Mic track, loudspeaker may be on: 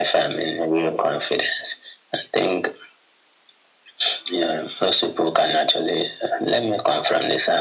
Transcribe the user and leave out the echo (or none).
none